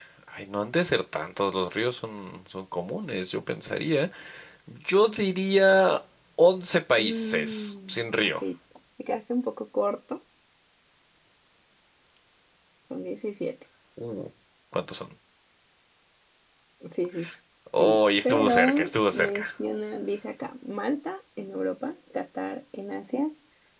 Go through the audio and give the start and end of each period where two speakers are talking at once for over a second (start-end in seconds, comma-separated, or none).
7.0-8.3, 17.8-19.4